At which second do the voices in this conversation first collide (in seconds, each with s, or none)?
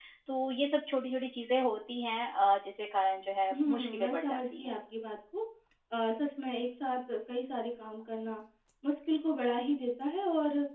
3.5 s